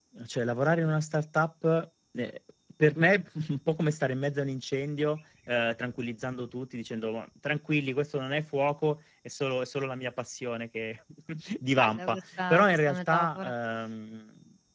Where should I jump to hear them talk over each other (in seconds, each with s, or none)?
11.8 s